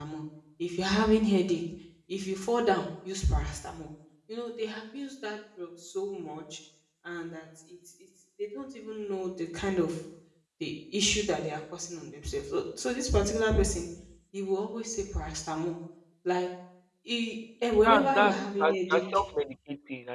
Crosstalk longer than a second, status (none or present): present